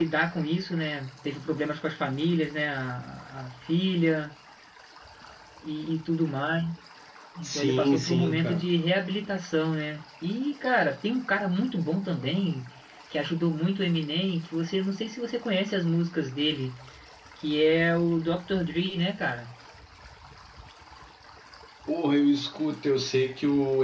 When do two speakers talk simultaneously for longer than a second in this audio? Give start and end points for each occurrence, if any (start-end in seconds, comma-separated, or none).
7.4-8.6